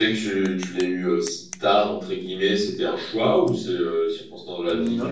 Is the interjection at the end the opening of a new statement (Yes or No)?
No